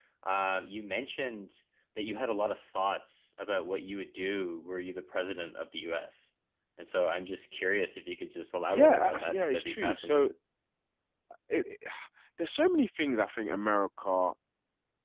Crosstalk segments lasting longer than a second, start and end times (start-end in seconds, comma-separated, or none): 8.7-10.3